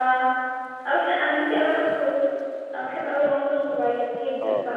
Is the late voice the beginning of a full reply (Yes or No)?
Yes